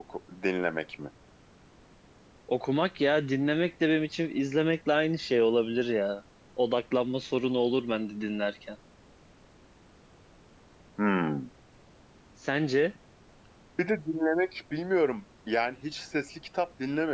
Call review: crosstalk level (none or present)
none